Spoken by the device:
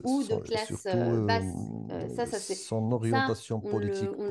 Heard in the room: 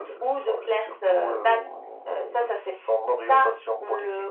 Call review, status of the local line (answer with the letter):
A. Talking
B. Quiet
B